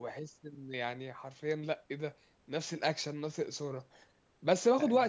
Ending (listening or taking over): listening